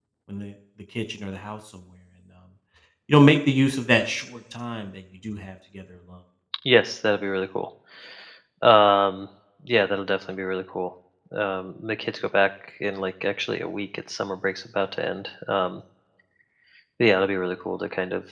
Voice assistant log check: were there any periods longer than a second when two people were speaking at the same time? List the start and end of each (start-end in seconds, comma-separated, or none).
none